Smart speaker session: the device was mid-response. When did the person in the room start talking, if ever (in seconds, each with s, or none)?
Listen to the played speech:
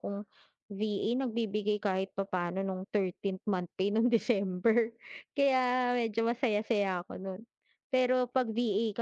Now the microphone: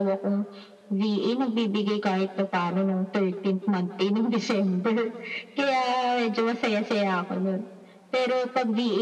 none